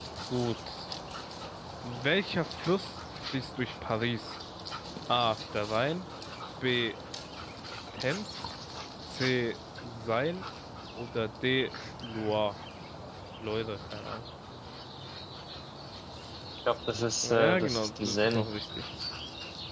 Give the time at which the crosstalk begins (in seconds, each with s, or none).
17.2 s